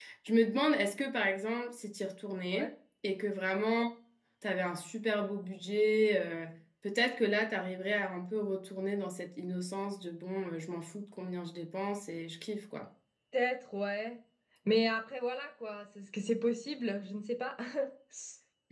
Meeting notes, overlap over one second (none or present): none